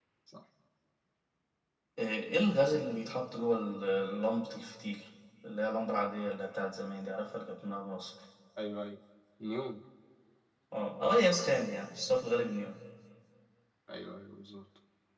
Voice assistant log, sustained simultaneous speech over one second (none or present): none